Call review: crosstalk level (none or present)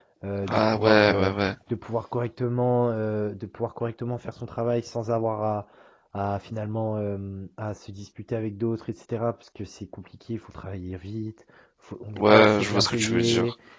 present